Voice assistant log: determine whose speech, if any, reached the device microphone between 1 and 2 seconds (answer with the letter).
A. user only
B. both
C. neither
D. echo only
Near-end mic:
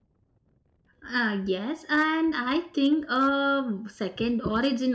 A